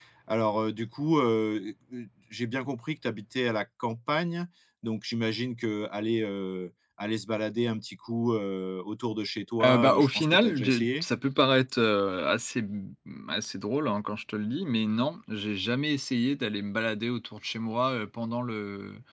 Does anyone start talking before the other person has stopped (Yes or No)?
Yes